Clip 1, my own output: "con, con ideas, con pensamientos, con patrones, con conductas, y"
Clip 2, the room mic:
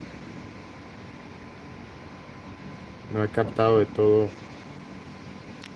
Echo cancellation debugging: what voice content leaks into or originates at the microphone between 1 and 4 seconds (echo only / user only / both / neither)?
user only